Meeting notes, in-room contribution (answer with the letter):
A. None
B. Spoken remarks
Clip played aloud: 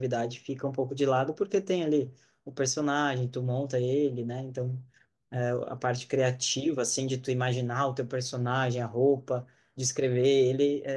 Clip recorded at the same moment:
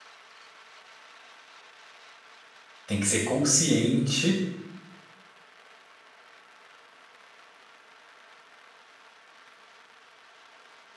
B